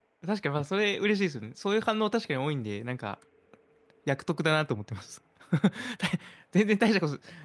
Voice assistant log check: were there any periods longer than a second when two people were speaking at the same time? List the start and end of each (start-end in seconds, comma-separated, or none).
none